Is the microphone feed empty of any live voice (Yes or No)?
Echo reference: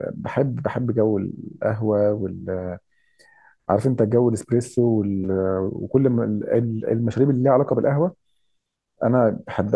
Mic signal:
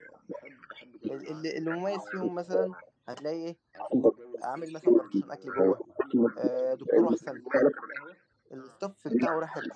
No